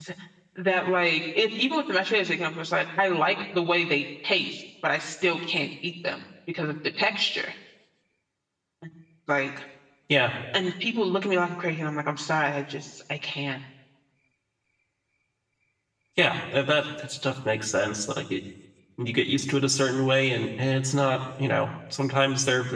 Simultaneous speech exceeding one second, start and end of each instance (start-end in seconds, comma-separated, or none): none